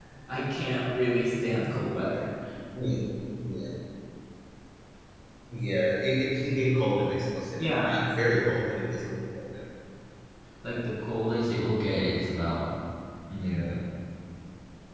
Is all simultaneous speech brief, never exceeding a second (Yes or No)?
Yes